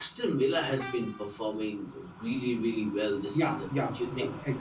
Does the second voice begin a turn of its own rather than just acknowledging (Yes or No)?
Yes